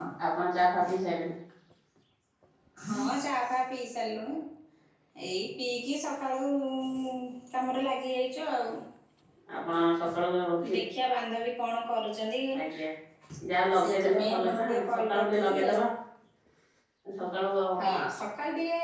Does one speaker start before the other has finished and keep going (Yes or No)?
Yes